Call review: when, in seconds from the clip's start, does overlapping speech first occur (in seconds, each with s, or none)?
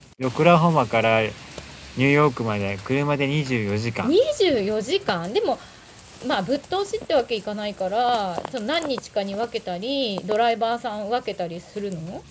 none